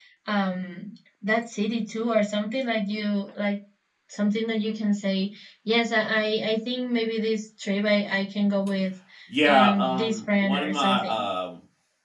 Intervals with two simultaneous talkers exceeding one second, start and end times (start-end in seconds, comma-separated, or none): 9.4-11.0